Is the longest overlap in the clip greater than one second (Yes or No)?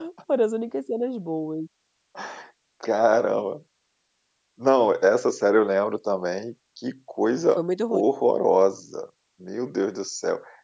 No